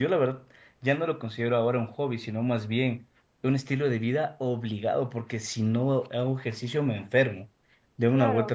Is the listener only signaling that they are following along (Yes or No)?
Yes